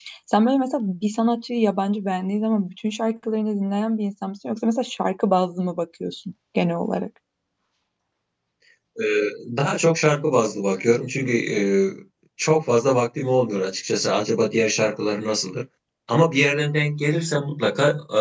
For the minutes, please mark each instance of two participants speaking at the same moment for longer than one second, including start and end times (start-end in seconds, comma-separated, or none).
none